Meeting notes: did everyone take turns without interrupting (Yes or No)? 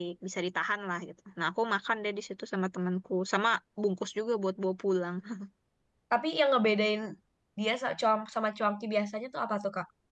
Yes